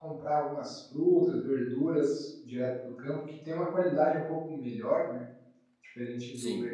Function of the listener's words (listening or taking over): listening